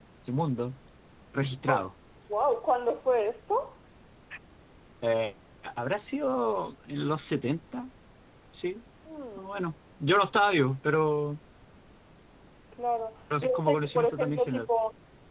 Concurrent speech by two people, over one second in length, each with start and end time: 13.4-14.7

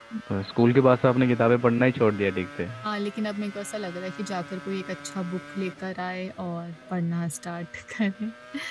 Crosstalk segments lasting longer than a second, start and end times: none

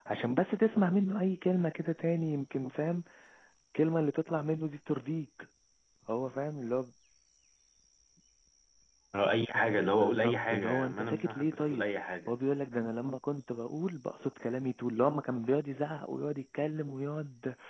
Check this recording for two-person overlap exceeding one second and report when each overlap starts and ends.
10.0-11.8

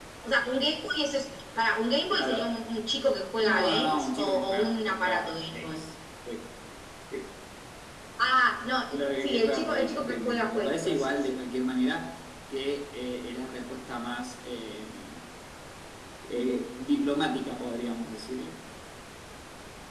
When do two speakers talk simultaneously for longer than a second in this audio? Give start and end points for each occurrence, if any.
3.4-5.8, 8.9-11.4

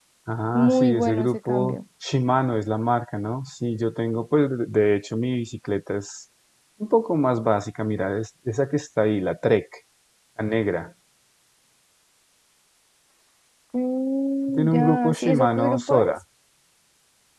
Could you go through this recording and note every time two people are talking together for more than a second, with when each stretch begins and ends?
0.5-1.8, 14.5-16.1

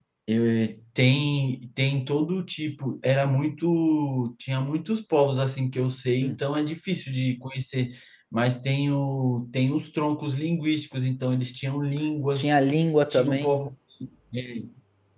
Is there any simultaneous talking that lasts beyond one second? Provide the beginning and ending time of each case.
none

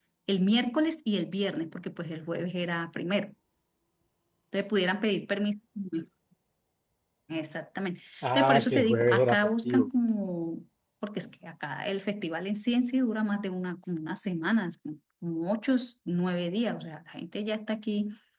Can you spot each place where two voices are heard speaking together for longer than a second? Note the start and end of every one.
8.3-9.9

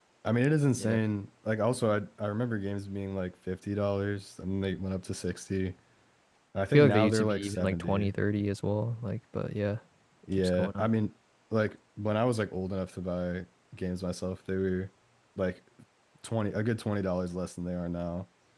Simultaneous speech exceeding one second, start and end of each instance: 6.7-8.1

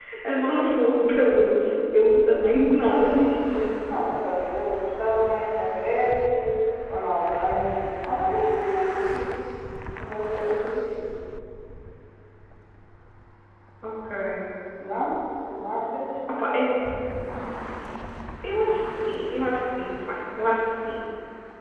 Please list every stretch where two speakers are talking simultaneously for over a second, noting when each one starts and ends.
none

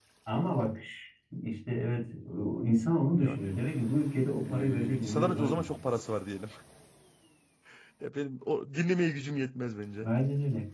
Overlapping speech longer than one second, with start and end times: 4.4-5.8

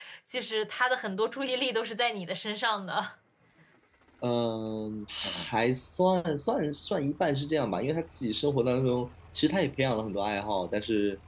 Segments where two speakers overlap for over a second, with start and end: none

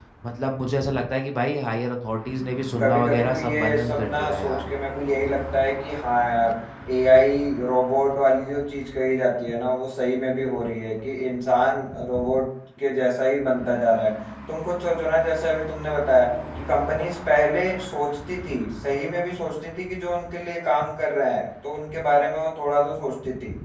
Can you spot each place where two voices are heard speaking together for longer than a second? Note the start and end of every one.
2.8-4.7

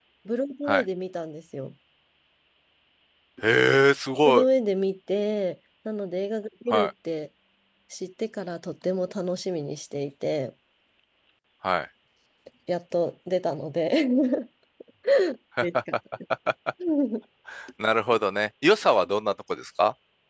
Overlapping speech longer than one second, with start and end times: none

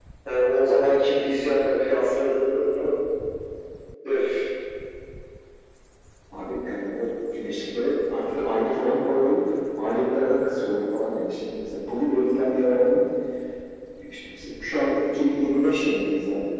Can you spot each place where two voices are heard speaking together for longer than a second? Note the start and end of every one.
none

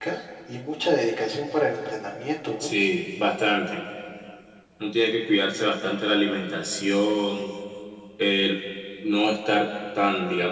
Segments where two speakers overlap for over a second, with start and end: none

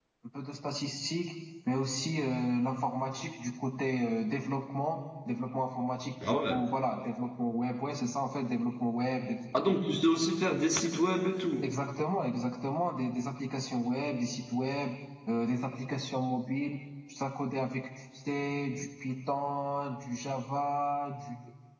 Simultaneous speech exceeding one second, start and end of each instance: none

